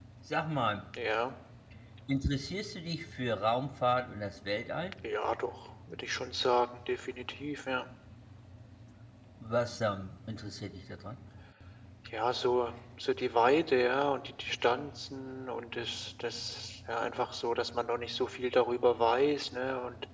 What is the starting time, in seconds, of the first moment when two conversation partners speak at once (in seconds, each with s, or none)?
none